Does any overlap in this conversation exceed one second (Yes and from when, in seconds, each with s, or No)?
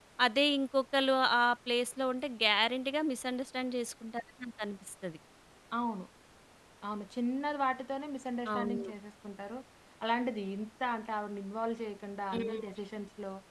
No